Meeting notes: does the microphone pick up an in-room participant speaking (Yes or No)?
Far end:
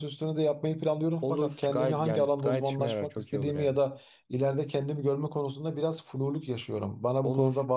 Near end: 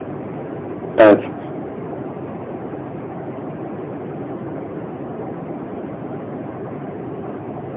Yes